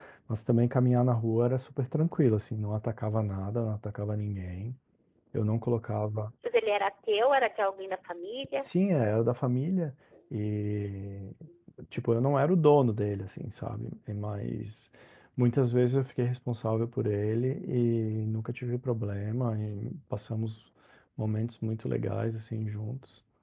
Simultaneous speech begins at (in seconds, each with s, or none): none